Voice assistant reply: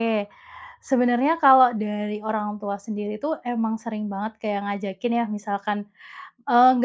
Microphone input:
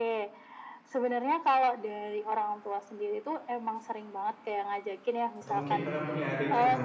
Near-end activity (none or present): present